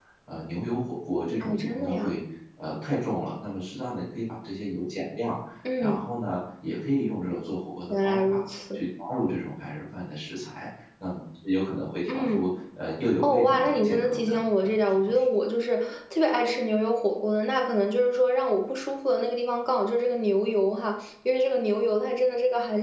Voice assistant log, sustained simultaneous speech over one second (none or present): present